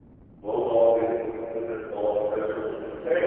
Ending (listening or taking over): taking over